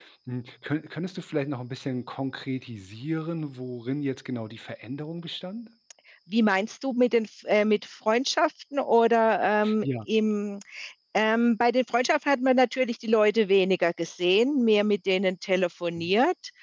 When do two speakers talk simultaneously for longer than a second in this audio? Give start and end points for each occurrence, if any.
none

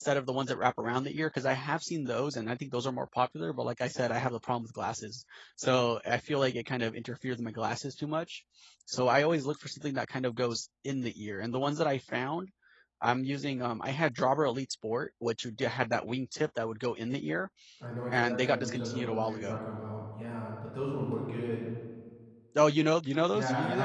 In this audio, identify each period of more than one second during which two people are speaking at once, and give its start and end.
18.3-19.6

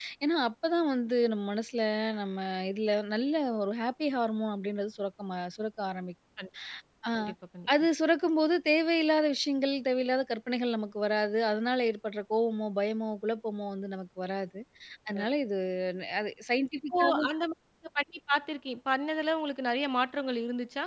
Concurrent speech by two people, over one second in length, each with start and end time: none

